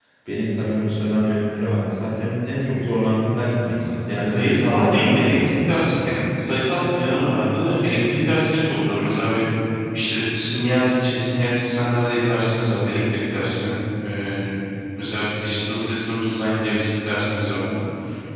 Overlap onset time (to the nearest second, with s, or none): 4 s